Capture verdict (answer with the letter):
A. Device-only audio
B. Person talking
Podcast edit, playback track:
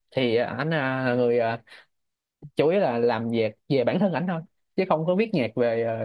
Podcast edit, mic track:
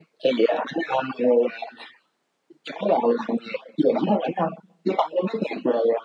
A